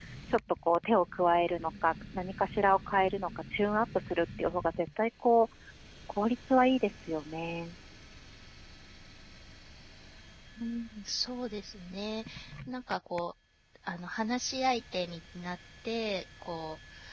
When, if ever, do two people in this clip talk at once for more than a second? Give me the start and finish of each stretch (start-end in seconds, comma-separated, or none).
none